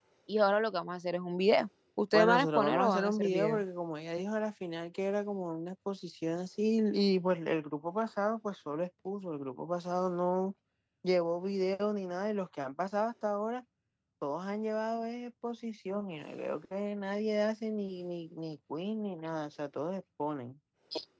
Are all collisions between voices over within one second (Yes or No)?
No